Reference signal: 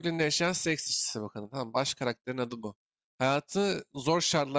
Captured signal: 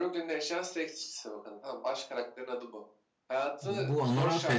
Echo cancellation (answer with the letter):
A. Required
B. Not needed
A